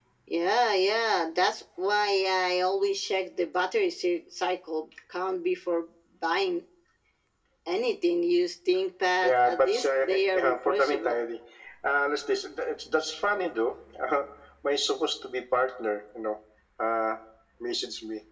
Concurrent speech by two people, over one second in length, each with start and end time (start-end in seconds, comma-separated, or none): 9.2-11.2